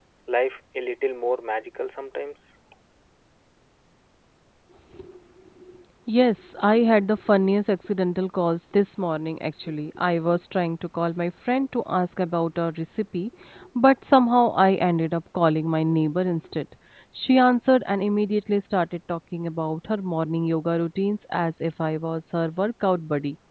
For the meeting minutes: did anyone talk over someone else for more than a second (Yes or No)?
No